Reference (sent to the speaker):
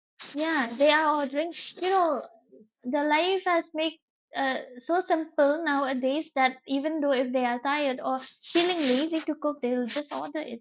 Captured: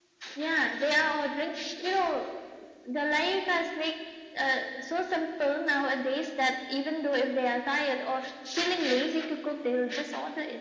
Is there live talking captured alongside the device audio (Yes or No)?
No